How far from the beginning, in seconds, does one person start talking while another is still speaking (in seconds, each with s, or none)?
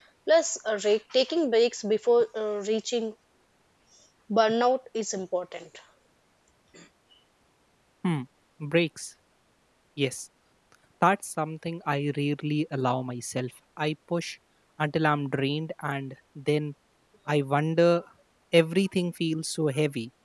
none